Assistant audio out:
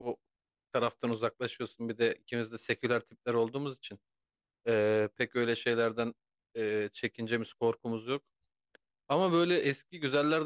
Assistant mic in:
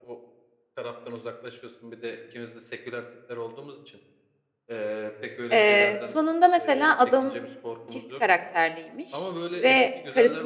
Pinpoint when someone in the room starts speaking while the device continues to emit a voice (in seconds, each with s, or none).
5.5 s